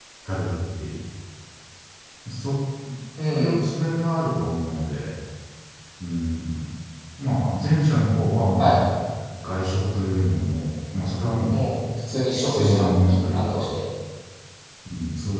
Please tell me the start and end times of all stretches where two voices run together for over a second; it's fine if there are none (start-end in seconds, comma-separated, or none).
12.3-13.7